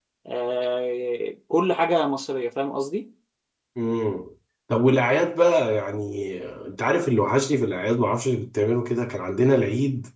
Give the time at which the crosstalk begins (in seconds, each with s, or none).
none